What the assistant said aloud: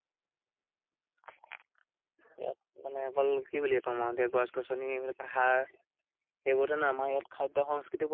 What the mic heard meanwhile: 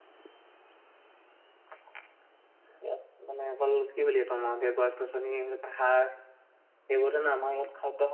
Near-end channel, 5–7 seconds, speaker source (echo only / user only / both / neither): echo only